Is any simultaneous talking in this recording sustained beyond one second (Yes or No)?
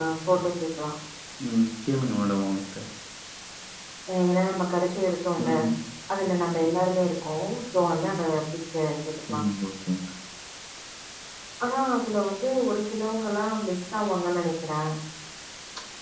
No